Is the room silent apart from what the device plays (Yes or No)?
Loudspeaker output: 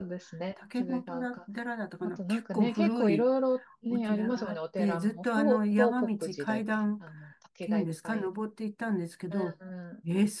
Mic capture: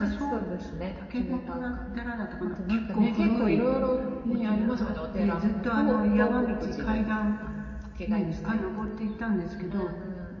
Yes